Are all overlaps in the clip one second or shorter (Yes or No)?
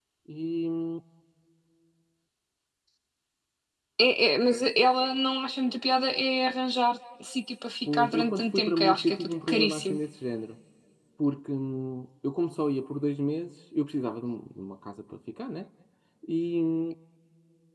No